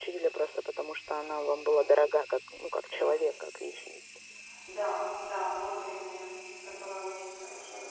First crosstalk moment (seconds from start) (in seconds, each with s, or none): none